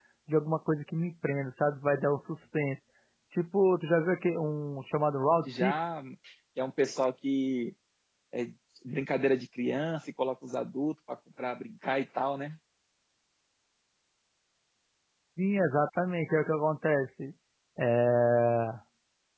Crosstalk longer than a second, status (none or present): none